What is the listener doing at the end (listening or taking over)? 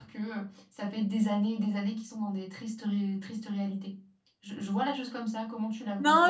taking over